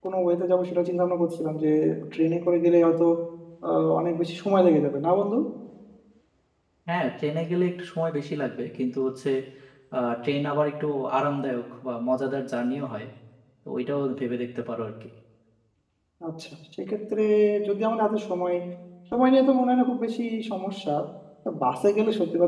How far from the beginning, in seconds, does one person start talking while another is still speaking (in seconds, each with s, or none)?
none